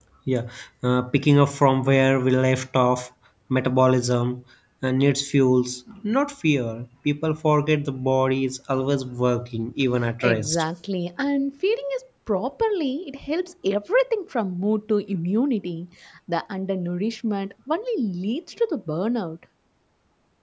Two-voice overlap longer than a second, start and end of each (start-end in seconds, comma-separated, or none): none